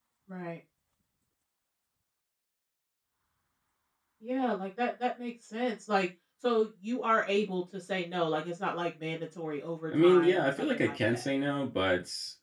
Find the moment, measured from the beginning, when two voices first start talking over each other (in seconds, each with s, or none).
9.9 s